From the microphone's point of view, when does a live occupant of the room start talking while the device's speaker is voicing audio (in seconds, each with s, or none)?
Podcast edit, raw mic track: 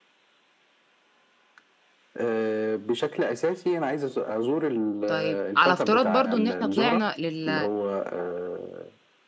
5.0 s